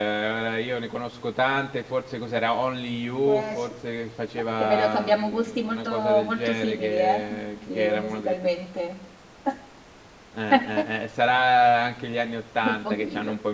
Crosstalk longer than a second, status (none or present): present